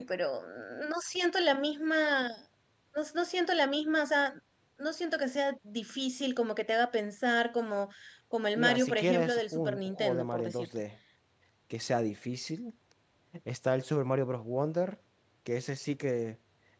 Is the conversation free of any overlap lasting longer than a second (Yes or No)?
No